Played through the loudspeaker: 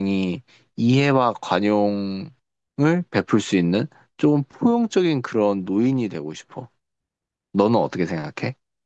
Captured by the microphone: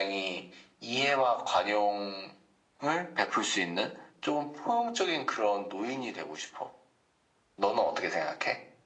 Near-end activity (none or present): none